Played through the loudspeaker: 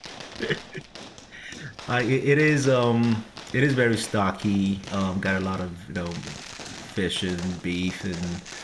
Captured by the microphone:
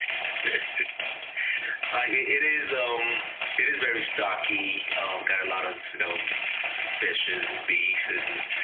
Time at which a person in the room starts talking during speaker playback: none

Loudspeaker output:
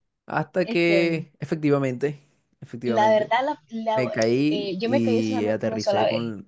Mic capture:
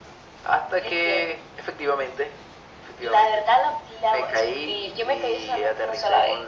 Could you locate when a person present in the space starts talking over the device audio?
none

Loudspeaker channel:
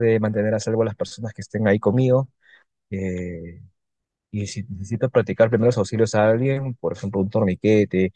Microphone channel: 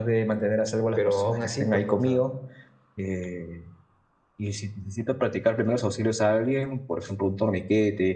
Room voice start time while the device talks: 0.9 s

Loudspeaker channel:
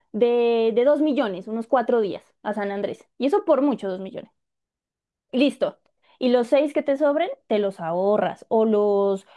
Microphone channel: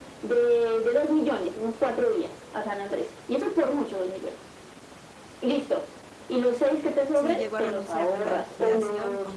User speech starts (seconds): 7.1 s

